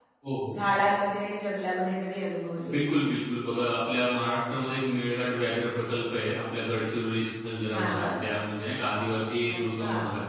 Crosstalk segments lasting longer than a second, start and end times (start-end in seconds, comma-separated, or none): none